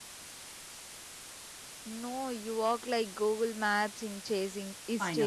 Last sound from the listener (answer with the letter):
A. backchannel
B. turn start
B